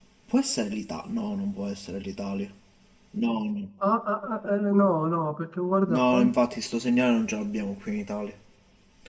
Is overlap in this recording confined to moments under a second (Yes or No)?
Yes